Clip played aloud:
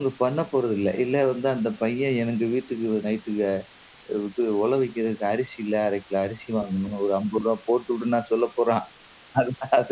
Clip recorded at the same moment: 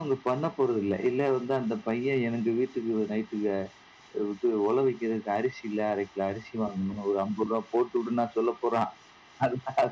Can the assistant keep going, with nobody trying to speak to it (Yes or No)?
Yes